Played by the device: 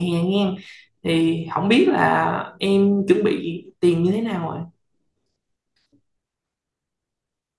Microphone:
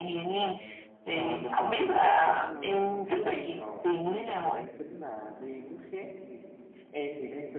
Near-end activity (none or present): present